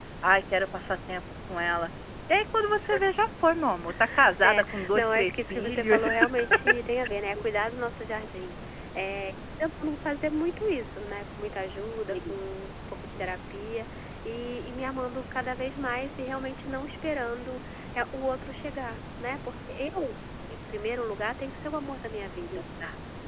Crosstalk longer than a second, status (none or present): present